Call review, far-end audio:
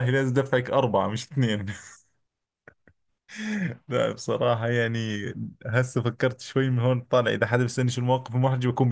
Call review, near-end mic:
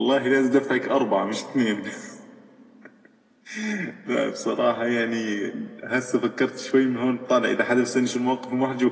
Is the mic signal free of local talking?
Yes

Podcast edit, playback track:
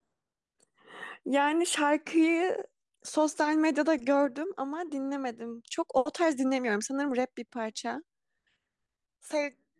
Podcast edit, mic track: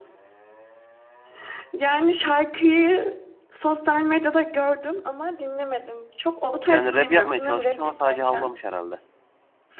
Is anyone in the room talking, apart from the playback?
Yes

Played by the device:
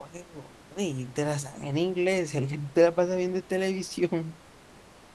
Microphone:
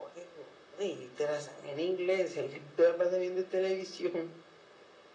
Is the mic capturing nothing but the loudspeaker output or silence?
Yes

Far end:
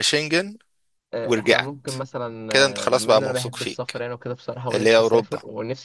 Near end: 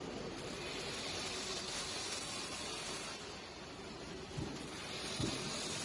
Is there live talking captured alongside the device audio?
No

